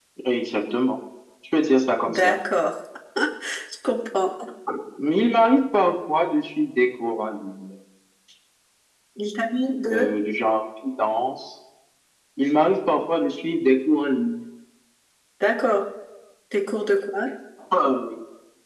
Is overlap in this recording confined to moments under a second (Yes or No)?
Yes